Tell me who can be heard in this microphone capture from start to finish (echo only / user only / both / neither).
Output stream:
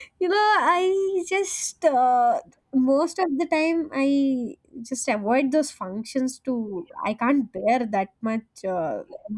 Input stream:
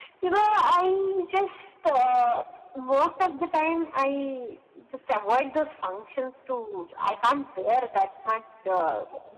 echo only